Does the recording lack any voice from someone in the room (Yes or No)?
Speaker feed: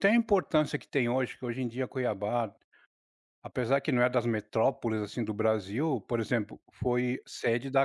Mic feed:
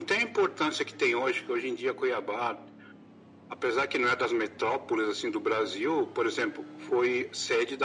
Yes